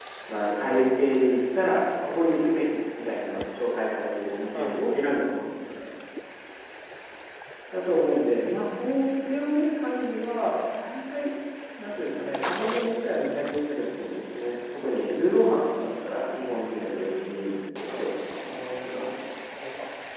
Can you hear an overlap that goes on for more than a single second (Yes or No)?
No